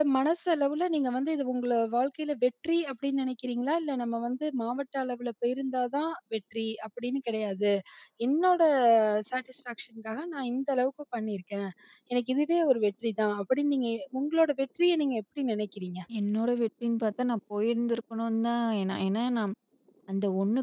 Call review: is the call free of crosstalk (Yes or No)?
Yes